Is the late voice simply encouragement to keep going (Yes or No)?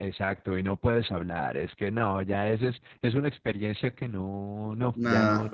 No